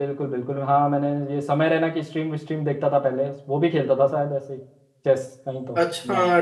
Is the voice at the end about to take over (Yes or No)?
Yes